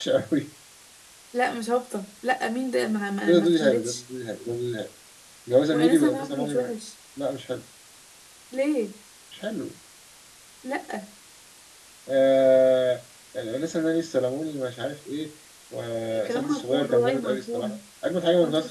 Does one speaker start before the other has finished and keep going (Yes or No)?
Yes